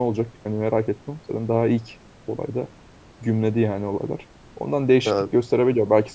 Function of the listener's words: listening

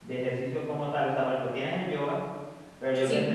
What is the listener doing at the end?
listening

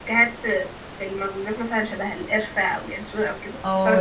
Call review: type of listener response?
taking over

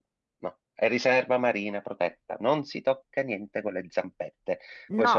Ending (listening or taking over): taking over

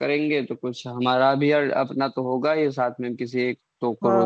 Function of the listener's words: taking over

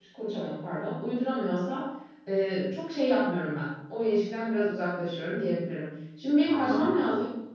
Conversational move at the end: listening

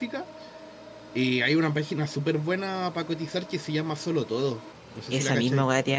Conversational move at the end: taking over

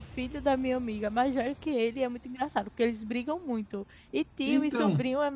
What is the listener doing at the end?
listening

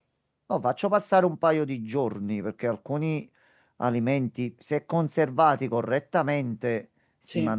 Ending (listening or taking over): listening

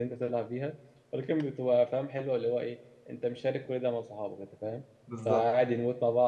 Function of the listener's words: listening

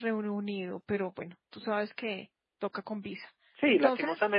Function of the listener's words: taking over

